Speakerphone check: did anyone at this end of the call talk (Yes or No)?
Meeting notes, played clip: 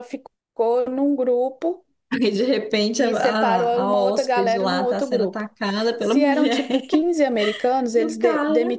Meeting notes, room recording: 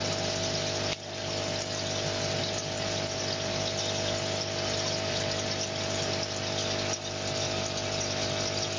No